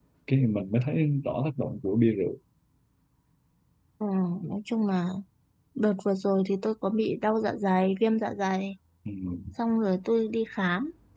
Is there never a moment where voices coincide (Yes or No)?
Yes